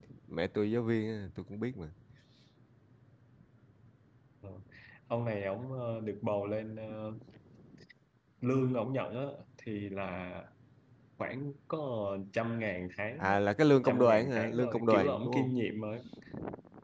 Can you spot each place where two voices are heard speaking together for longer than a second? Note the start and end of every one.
13.8-15.5

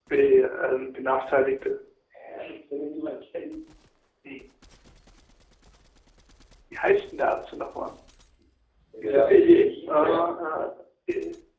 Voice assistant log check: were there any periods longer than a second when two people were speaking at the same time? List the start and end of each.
9.0-10.3

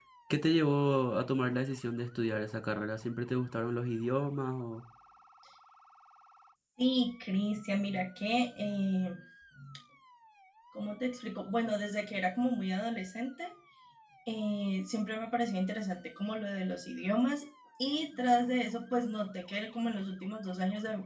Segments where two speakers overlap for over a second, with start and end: none

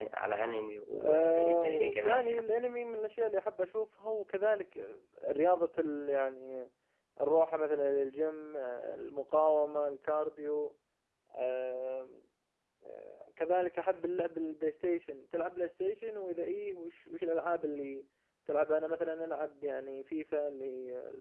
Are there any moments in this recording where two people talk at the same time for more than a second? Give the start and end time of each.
0.9-2.4

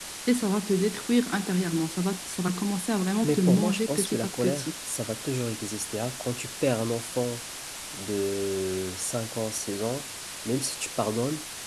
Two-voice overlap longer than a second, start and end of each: 3.2-4.7

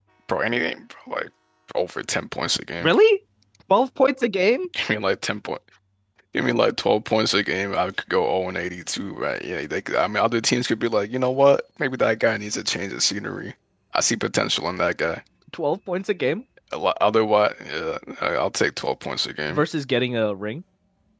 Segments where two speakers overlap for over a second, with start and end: none

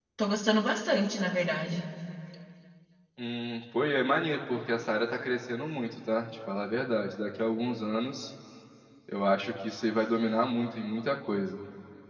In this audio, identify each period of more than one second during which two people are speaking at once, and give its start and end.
none

